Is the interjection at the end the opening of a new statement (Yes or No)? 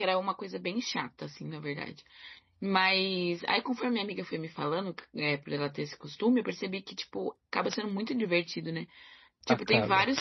No